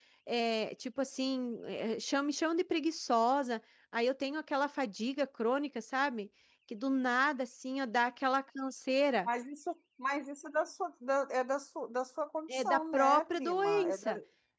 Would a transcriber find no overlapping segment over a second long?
No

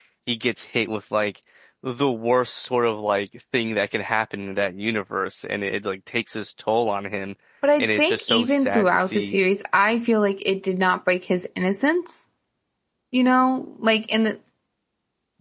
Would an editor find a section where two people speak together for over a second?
Yes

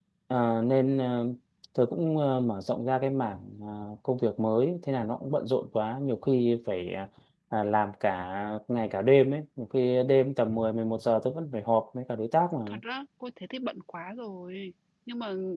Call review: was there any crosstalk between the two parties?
No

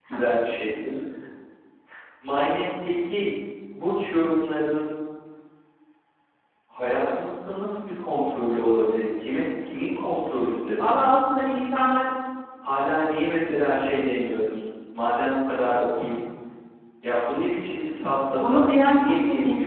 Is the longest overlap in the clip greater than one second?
Yes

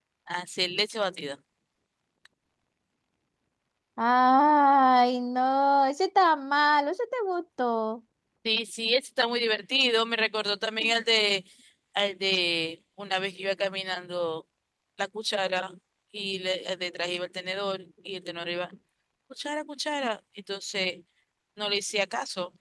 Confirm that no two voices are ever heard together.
Yes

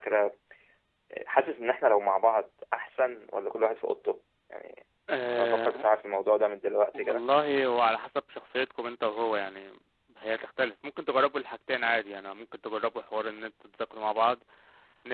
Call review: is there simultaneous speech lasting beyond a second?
No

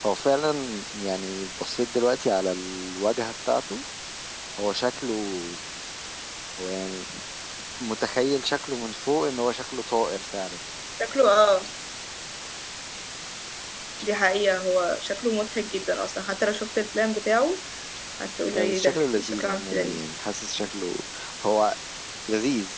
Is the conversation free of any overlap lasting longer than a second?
No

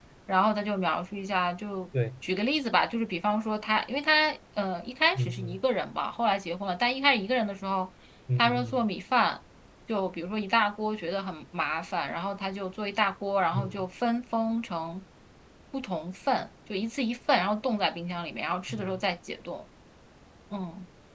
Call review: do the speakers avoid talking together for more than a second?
Yes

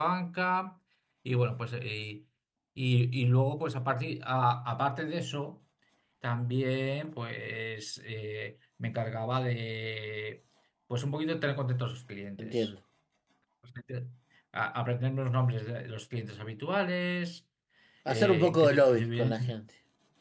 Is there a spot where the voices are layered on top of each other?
Yes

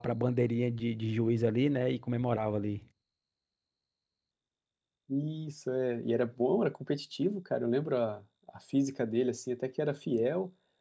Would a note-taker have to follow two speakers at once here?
No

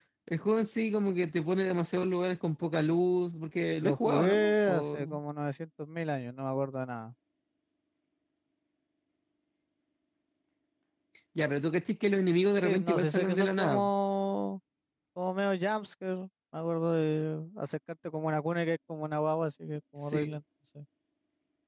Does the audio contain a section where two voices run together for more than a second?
Yes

